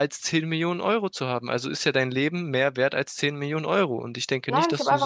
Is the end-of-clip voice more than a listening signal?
Yes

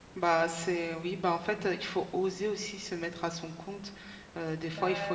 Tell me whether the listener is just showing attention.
No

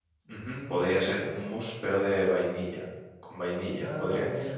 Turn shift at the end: No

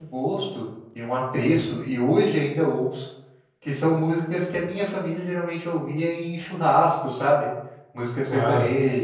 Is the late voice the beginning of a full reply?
No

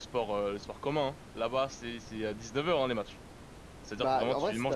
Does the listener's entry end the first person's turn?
Yes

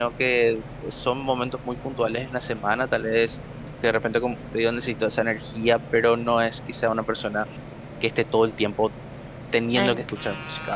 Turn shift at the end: Yes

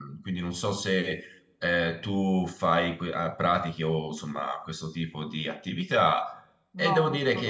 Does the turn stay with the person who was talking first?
No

